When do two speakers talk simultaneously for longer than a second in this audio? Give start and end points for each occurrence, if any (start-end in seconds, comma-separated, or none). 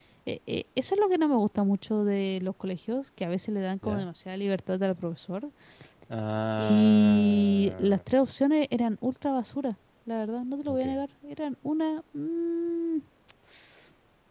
6.6-8.0